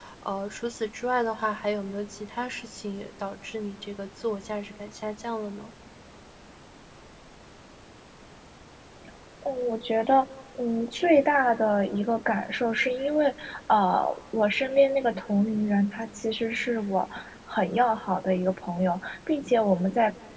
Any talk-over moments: No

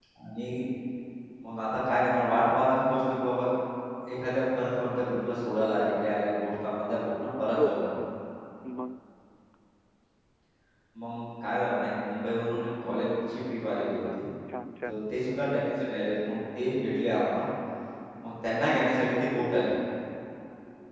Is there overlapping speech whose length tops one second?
No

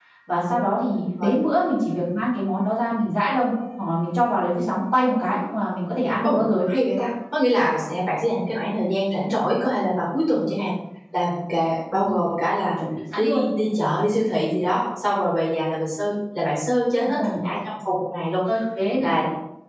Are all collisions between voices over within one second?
Yes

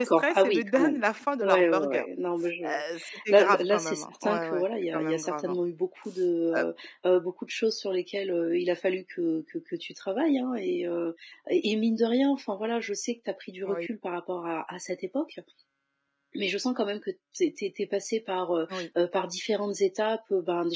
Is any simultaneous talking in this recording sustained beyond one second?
Yes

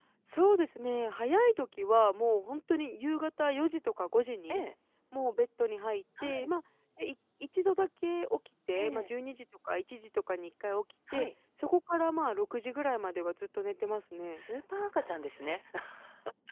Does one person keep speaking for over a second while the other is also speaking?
No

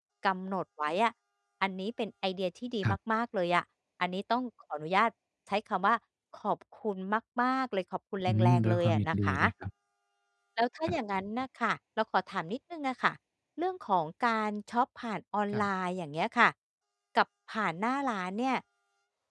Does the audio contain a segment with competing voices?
Yes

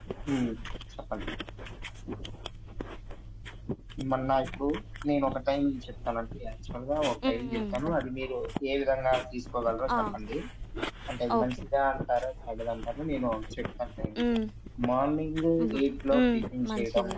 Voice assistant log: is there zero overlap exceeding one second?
No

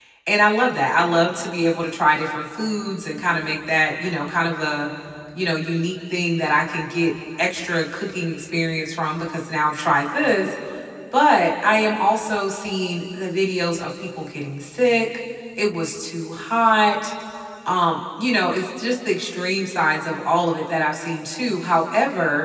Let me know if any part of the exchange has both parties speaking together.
No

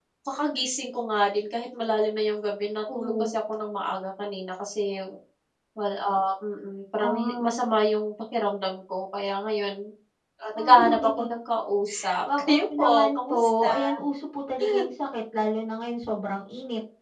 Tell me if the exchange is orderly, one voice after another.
No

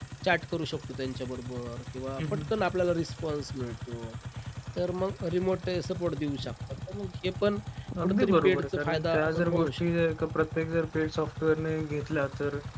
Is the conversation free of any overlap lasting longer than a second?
No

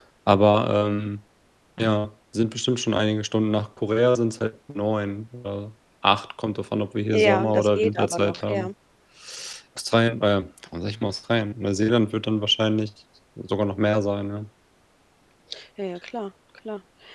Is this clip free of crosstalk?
No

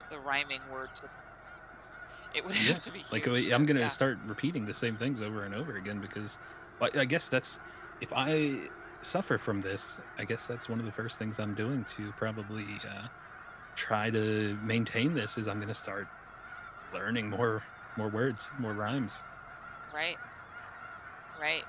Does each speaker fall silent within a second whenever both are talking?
No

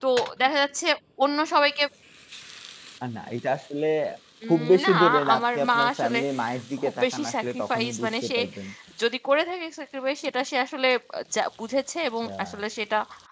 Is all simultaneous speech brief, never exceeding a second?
No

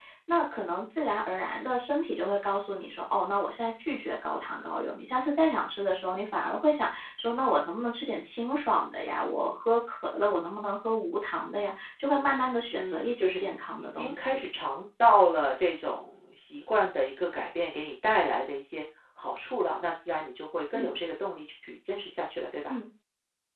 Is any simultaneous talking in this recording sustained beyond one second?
Yes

